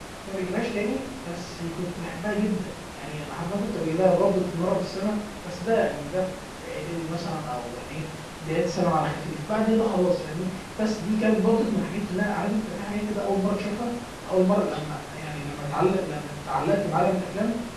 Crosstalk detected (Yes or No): No